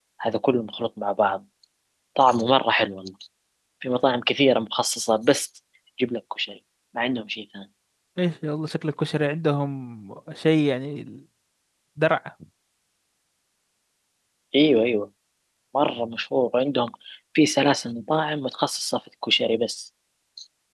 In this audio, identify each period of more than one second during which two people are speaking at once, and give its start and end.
none

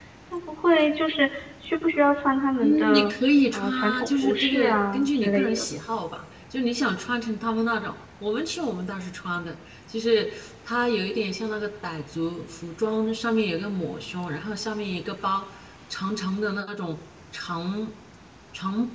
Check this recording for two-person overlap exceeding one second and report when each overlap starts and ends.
3.5-5.6

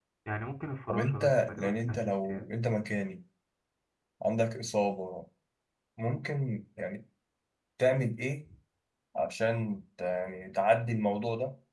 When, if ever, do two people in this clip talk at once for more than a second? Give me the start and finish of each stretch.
0.9-2.5

